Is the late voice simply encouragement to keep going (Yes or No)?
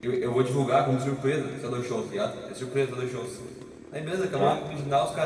Yes